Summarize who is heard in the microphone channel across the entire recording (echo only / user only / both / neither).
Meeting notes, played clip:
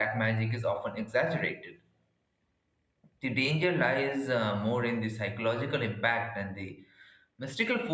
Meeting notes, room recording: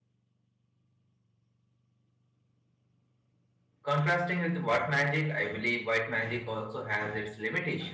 user only